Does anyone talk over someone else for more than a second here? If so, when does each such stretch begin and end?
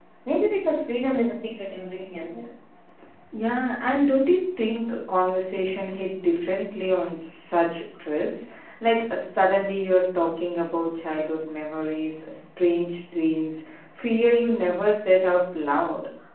none

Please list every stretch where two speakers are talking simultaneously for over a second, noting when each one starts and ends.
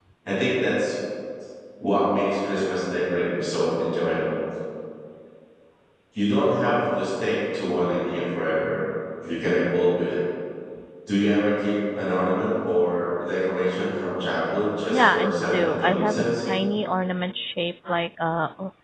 14.9-16.4

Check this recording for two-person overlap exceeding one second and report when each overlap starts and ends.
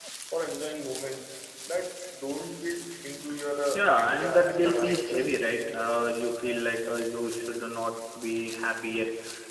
3.8-5.5

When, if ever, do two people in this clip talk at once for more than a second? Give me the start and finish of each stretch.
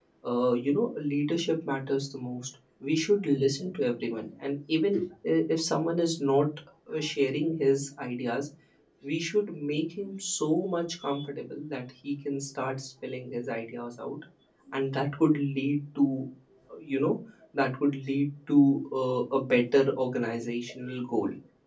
none

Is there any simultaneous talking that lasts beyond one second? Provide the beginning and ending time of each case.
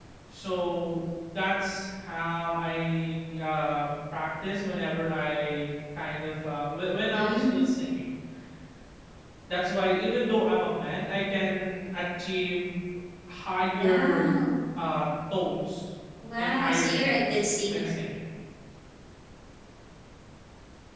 16.4-18.0

